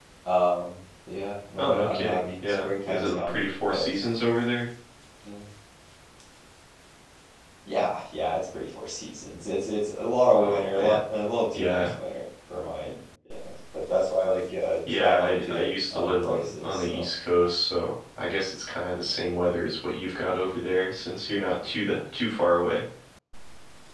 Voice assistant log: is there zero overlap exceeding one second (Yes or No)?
No